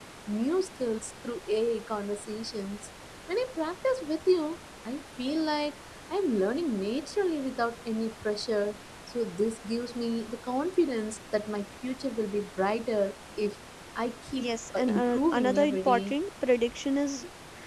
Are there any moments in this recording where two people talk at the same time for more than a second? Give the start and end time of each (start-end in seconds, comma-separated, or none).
14.4-16.1